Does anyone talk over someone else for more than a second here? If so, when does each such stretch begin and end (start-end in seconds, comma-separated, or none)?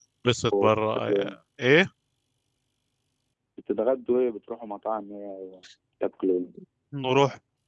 none